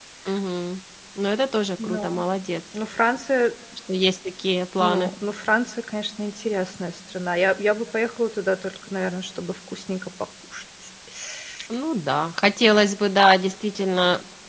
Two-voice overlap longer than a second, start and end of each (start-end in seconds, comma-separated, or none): none